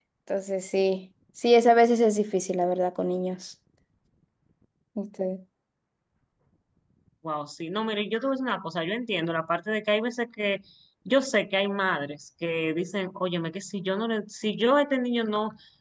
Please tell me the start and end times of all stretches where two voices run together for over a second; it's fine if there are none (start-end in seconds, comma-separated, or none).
none